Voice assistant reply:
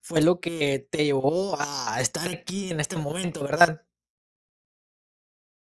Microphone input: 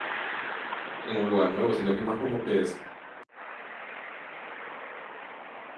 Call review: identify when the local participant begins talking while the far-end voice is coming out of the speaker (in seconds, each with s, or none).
1.0 s